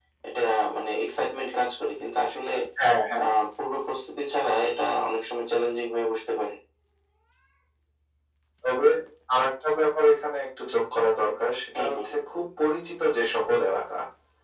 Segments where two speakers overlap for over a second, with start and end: none

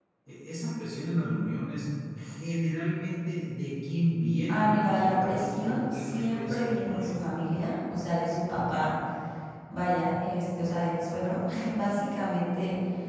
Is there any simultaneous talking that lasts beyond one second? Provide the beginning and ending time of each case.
4.5-7.1

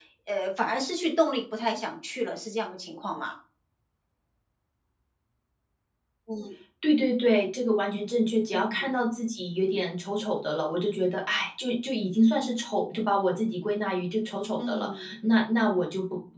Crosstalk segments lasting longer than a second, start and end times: none

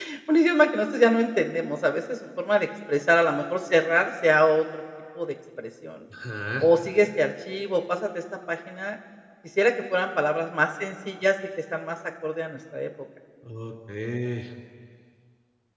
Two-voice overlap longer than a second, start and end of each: none

